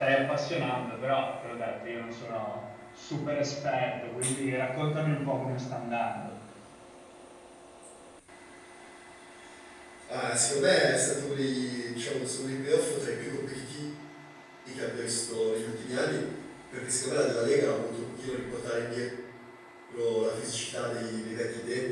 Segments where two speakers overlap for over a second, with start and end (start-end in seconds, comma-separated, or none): none